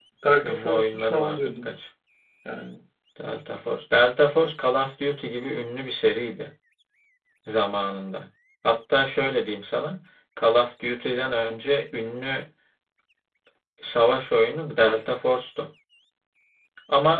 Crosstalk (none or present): present